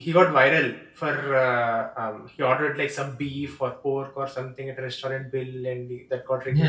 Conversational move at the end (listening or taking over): taking over